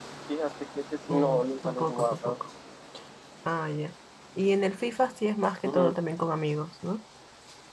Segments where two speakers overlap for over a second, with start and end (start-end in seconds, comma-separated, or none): 1.1-2.3